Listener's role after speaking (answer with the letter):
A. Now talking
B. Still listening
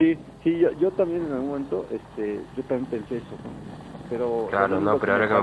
A